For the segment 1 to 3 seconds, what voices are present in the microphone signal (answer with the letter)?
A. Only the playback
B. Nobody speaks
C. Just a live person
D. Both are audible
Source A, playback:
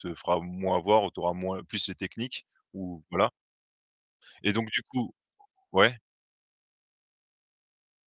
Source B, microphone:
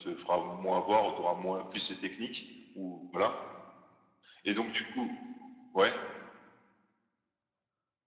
A